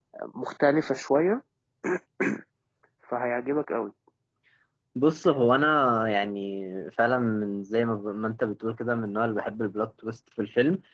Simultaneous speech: No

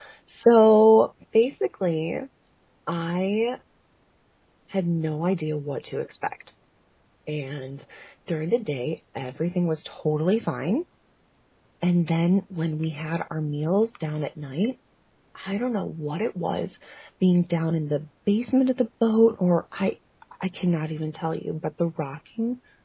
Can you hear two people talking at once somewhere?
No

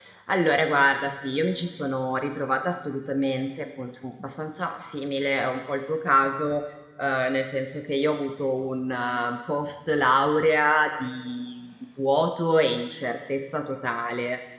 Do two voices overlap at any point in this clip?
No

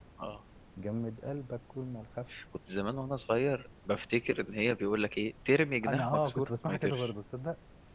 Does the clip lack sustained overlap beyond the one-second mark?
No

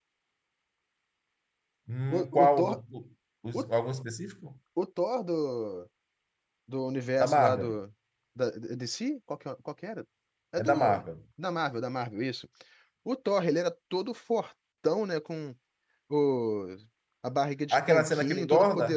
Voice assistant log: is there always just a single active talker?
No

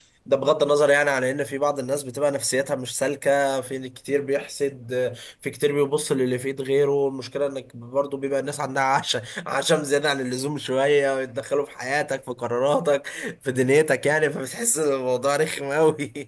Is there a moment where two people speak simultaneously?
No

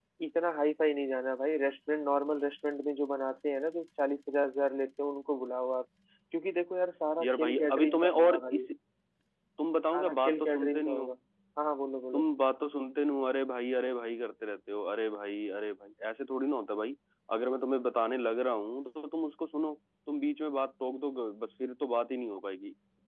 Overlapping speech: Yes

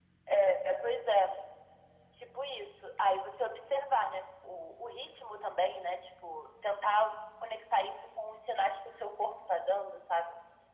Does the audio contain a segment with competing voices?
No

